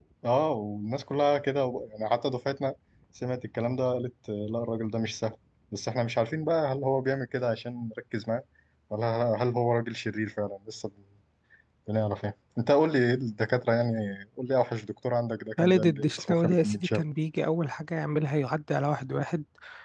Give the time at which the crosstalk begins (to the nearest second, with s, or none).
16 s